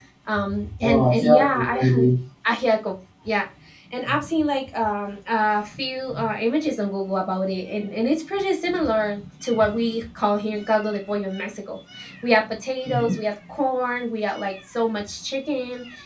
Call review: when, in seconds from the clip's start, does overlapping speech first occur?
0.8 s

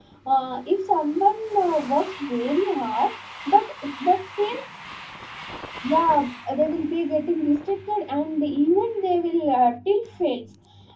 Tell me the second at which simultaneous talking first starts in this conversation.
none

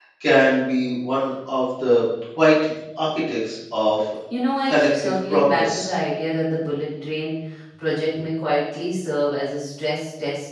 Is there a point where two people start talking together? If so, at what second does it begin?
4.7 s

